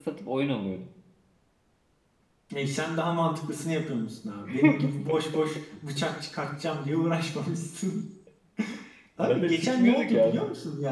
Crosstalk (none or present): present